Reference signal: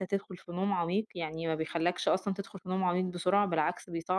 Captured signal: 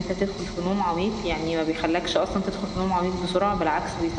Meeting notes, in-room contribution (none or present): none